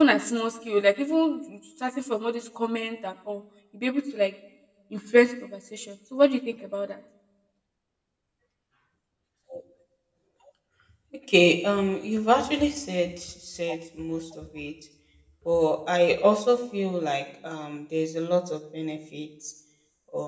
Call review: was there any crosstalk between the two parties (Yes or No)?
No